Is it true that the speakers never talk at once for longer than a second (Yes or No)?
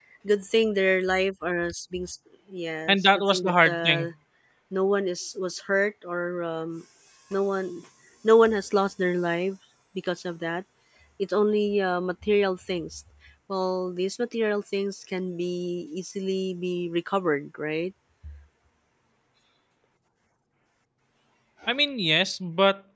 No